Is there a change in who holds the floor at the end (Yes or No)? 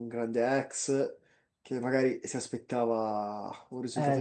Yes